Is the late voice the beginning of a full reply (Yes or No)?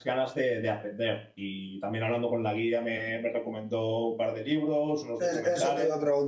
Yes